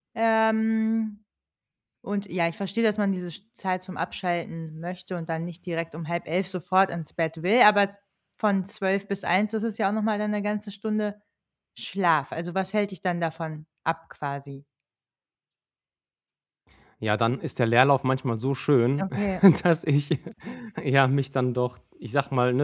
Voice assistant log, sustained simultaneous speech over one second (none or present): none